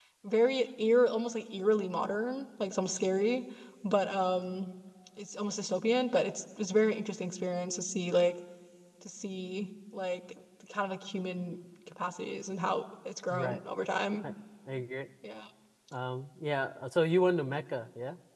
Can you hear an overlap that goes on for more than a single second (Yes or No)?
No